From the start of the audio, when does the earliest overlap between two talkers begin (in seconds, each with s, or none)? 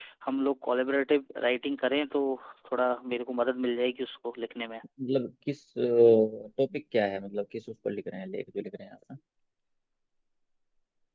none